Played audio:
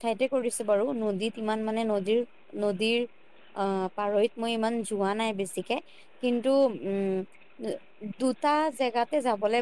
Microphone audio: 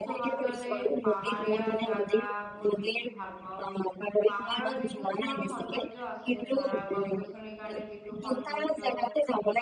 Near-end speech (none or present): present